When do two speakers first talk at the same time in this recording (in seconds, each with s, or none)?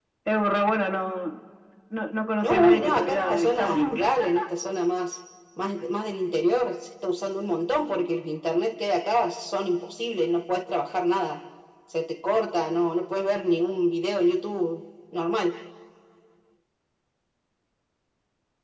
2.4 s